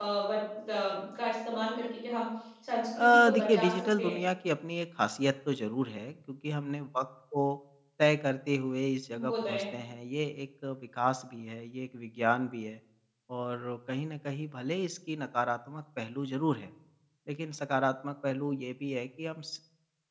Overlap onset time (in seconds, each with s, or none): 3.0 s